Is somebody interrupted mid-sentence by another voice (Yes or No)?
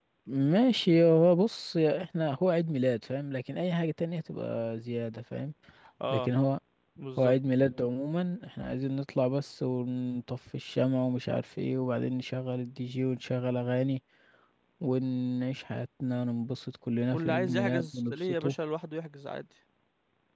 Yes